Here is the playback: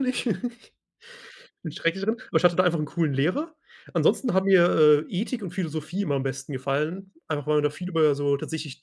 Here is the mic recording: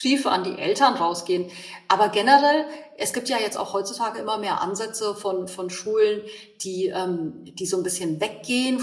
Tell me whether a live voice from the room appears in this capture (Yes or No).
Yes